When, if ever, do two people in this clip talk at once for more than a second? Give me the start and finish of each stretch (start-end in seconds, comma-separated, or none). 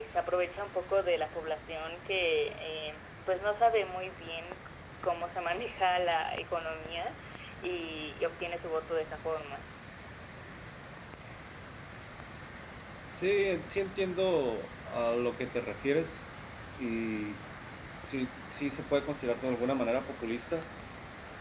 none